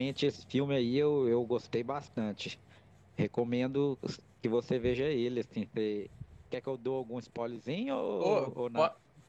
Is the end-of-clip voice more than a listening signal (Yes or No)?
Yes